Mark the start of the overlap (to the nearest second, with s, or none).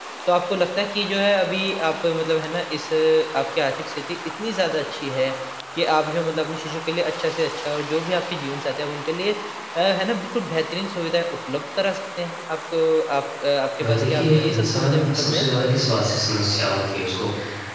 14 s